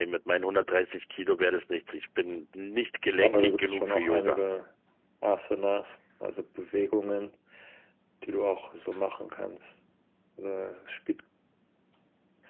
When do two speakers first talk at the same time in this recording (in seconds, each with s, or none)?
3.2 s